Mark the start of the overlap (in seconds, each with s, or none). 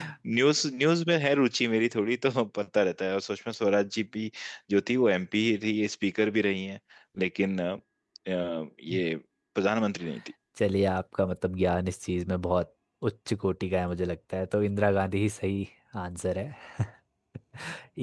none